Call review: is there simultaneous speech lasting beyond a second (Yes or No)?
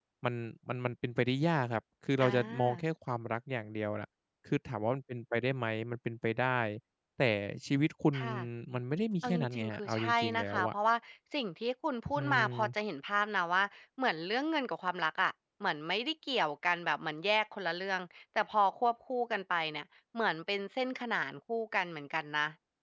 Yes